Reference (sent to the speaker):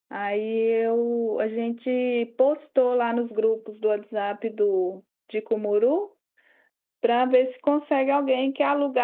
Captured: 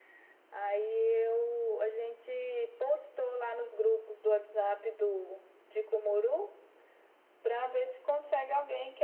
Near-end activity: none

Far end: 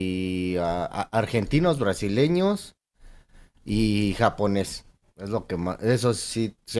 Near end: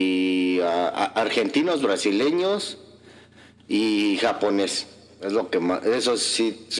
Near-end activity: none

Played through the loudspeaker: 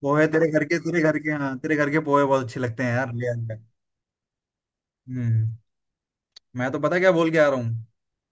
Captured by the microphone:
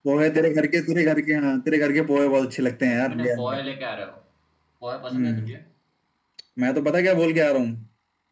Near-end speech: present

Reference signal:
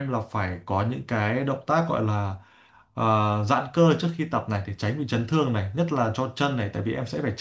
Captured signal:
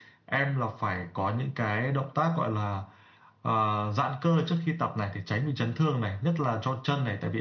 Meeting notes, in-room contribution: none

